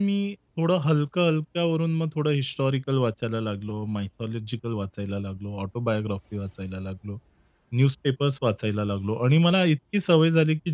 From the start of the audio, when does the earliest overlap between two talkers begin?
none

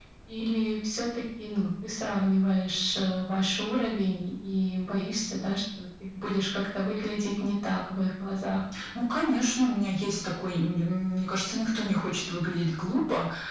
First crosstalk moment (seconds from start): none

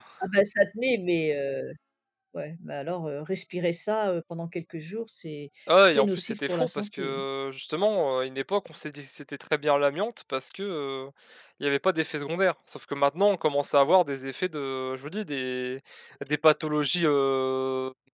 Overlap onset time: 5.7 s

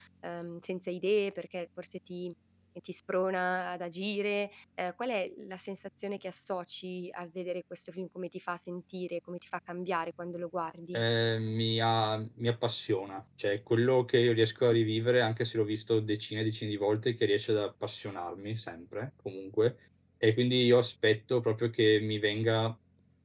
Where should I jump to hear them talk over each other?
none

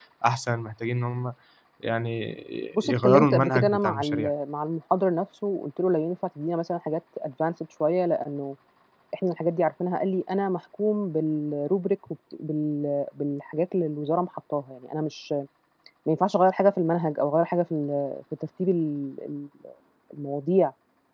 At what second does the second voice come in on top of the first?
2.8 s

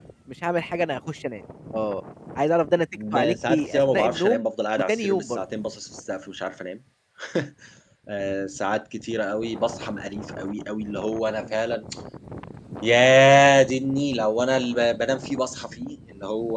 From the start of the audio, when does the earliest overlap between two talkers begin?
2.9 s

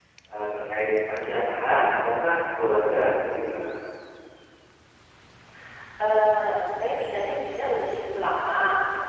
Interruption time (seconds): none

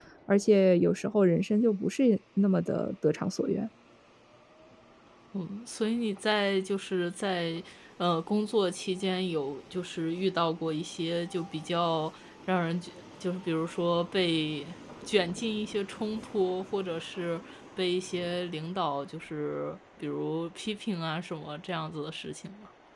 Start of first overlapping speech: none

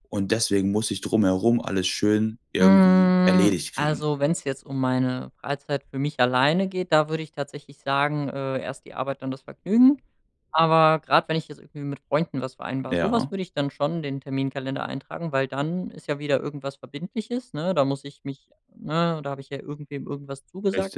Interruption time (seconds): 2.6 s

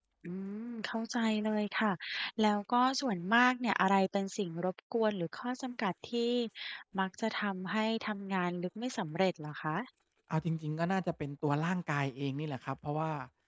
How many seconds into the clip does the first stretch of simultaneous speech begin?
none

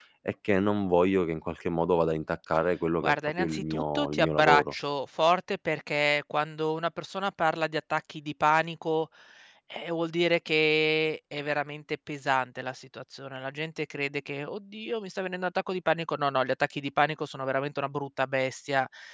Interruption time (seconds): 3.0 s

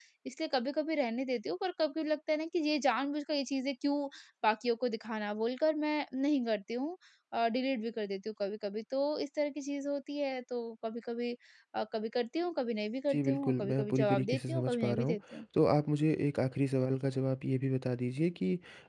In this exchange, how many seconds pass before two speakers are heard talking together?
13.1 s

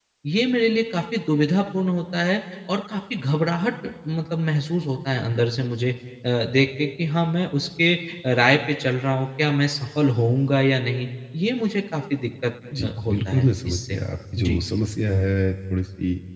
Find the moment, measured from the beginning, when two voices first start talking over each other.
12.7 s

